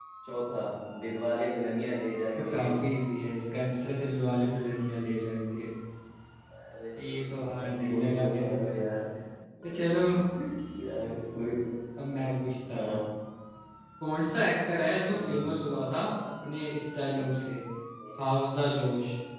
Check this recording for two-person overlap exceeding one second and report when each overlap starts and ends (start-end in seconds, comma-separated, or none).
7.3-8.7